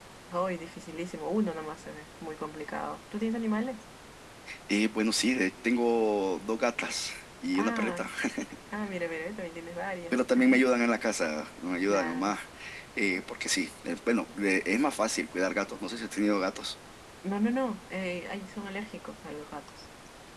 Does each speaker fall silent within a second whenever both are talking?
Yes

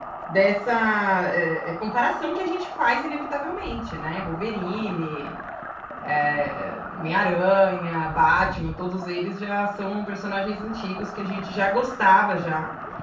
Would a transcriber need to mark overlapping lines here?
No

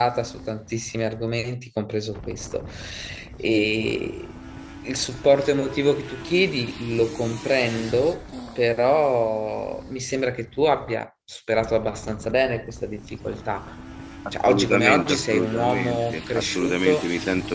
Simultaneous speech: Yes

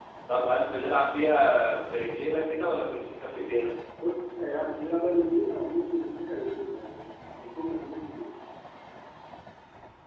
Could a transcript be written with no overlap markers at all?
Yes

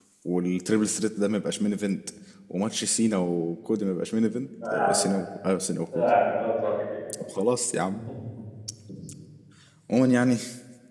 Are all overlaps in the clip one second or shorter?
Yes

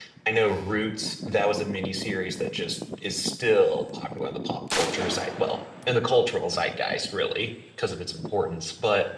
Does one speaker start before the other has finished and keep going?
No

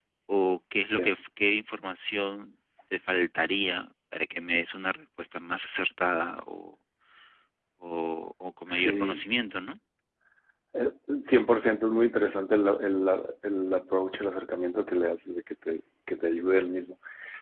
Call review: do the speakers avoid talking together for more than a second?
Yes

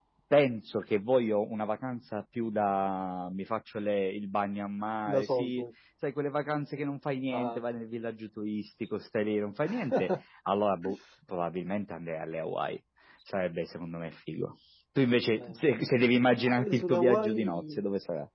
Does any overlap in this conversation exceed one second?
Yes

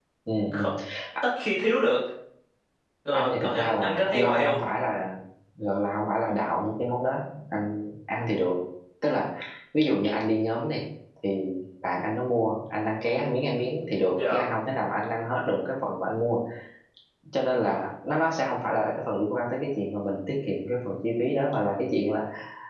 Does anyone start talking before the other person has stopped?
Yes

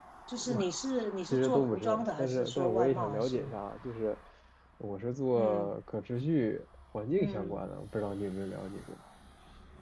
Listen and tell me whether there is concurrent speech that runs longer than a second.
Yes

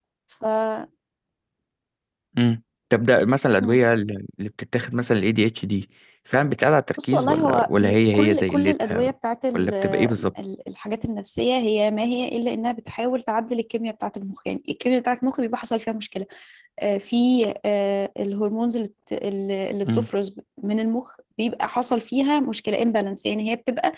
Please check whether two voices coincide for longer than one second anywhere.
Yes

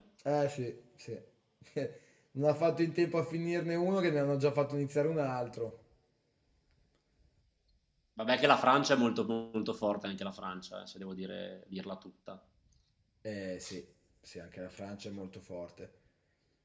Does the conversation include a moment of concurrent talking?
No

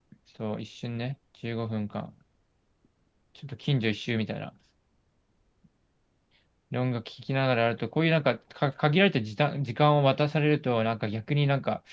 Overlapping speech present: No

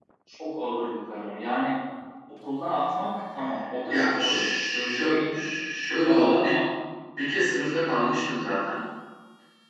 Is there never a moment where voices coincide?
No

